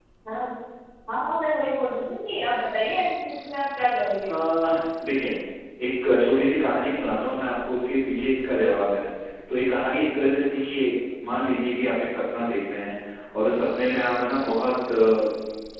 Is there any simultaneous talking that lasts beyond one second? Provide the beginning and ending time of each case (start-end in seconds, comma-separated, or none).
none